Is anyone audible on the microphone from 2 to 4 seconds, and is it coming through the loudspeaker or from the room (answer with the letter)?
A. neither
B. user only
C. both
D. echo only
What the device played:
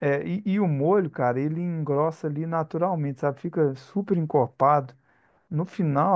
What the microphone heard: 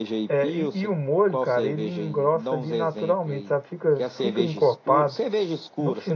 C